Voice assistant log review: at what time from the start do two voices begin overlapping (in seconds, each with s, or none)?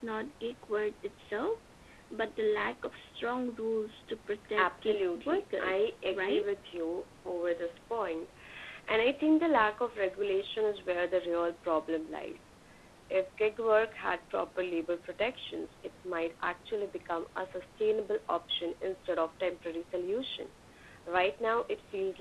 4.5 s